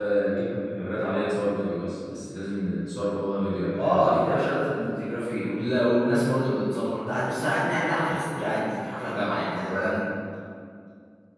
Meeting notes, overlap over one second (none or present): none